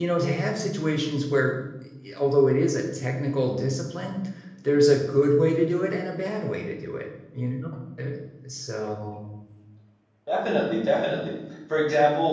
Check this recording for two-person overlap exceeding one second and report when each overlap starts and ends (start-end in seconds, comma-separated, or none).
none